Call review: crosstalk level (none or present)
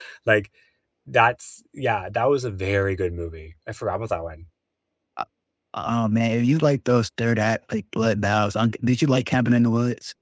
none